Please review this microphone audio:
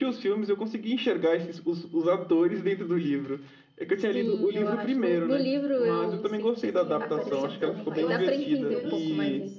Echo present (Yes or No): Yes